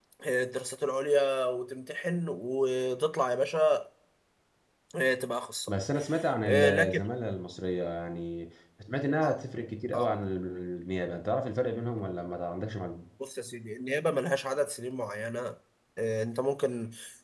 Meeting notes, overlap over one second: none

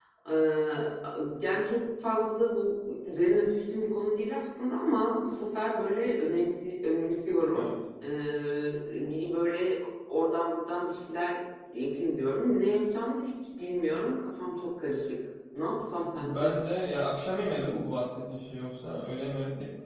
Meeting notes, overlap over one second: none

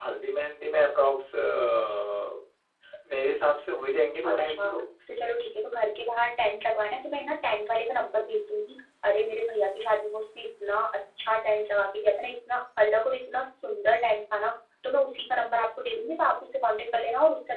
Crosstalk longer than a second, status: none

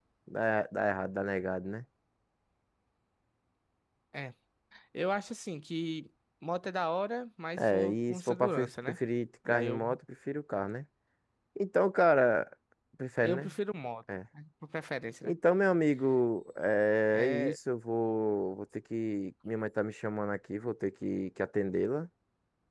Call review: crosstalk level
present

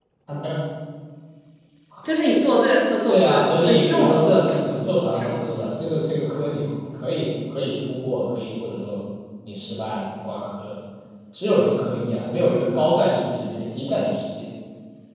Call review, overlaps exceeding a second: present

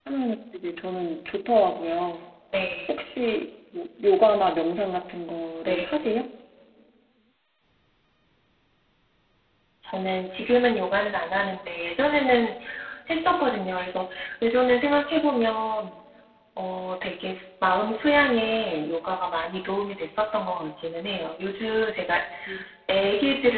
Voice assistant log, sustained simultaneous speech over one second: none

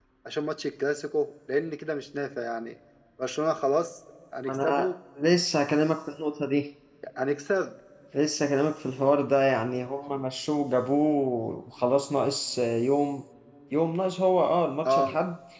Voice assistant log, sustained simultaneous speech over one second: none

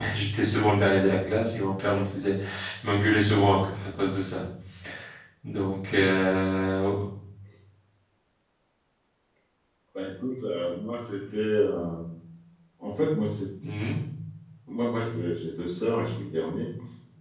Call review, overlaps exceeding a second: none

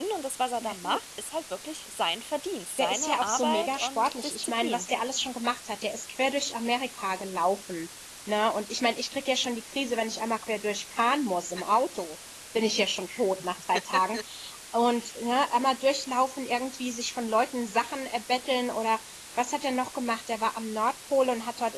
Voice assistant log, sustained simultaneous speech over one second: present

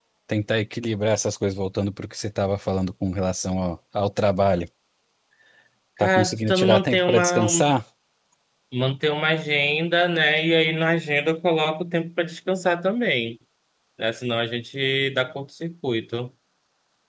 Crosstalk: present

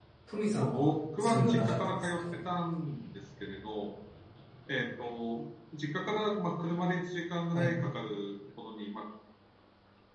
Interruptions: present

